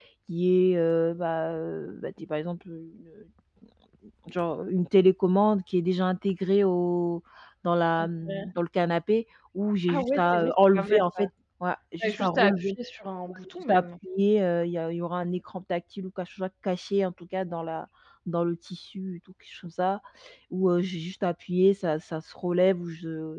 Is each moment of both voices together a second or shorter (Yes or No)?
No